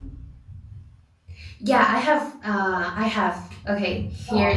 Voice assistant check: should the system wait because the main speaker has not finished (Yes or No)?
Yes